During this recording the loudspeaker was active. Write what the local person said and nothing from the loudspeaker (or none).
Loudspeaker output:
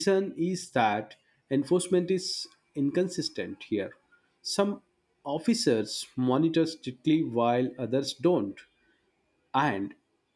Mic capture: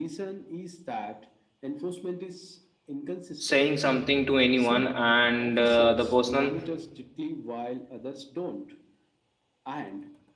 saying something to anyone and uh, the person